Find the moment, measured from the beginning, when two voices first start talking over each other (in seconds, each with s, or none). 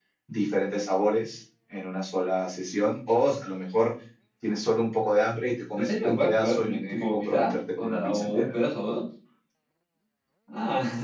5.8 s